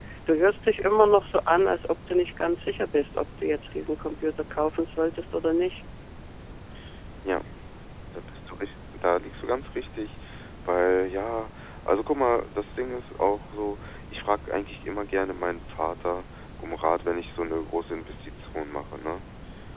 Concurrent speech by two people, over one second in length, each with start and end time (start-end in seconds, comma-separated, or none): none